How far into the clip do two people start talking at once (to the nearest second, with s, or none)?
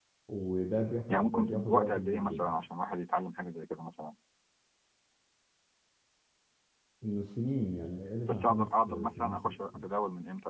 1 s